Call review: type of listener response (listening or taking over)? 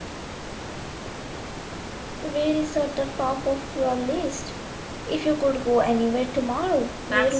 taking over